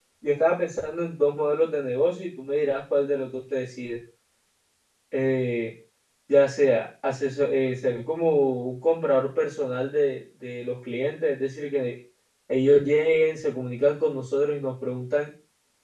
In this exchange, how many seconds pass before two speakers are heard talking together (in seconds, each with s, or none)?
none